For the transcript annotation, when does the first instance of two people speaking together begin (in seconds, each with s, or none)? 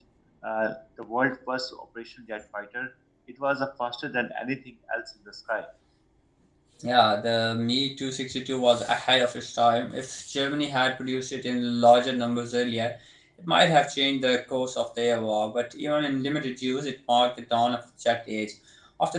none